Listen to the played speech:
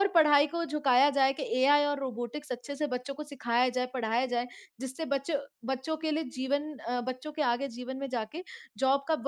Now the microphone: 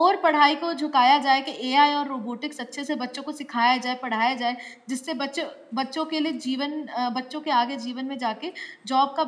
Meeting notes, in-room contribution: none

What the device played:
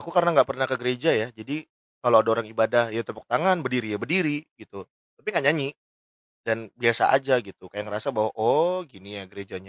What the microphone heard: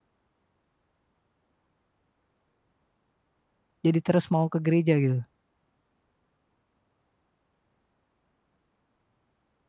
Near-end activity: present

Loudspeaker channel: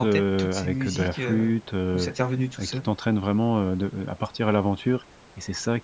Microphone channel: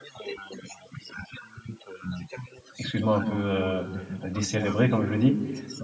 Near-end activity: present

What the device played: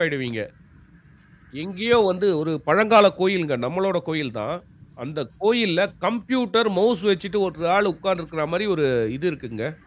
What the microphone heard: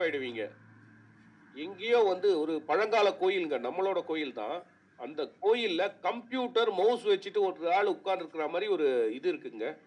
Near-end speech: none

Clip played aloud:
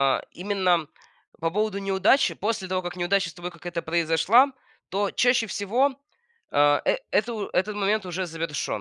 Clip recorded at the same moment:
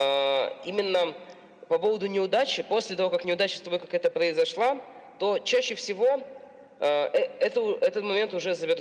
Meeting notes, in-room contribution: none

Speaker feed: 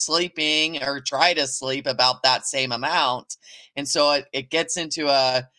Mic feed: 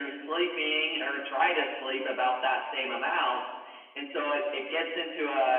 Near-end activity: none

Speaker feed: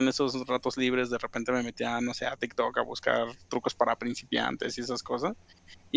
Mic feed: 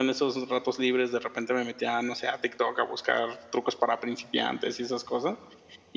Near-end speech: none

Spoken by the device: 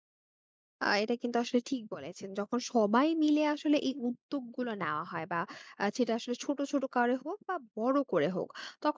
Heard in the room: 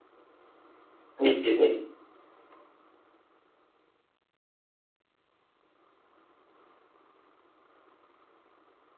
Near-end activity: present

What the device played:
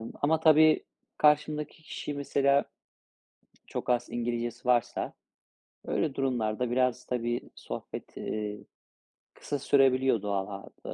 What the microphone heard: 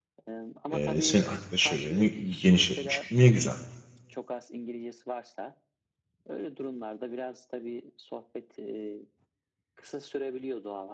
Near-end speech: present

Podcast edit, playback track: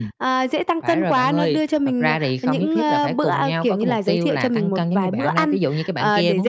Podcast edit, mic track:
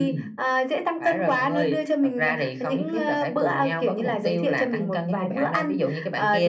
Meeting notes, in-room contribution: none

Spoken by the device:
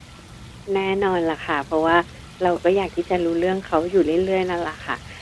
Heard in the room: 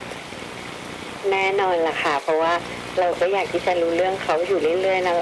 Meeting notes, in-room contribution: none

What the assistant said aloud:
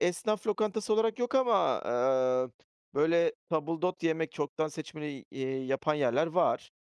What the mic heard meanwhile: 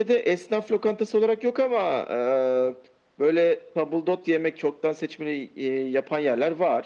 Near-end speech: none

